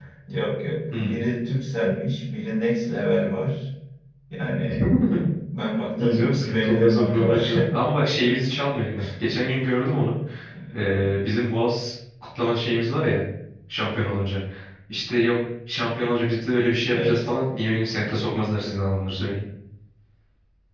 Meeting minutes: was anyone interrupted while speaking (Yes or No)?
Yes